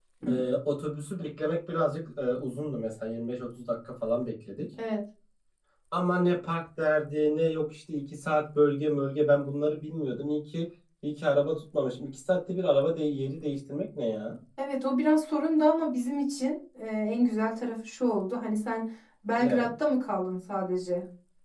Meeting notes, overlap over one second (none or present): none